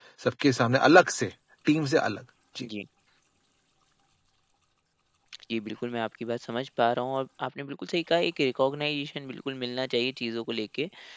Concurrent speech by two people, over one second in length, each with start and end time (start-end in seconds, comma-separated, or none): none